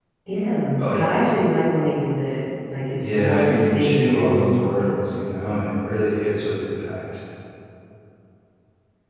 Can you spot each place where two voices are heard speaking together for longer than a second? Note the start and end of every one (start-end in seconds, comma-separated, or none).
3.0-5.0